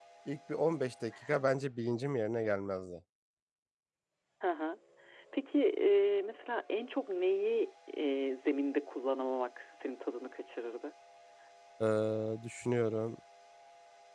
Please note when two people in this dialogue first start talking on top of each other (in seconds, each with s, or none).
none